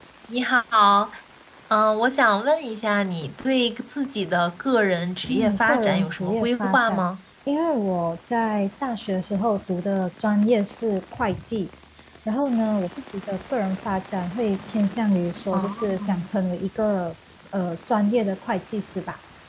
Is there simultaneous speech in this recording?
Yes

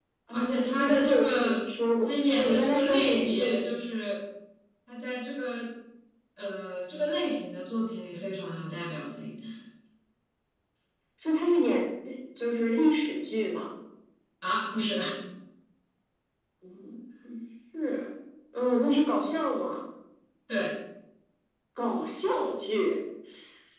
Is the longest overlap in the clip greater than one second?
Yes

